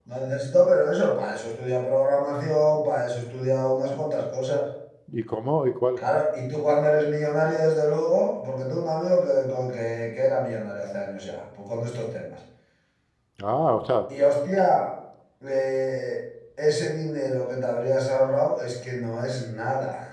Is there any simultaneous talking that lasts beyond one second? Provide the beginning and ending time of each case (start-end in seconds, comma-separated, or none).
none